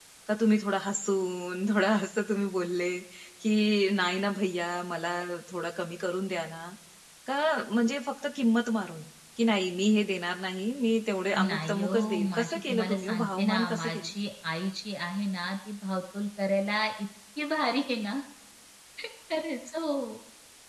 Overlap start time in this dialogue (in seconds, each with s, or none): 11.4 s